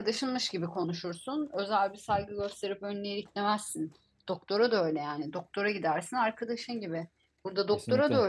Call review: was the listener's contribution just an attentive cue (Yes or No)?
Yes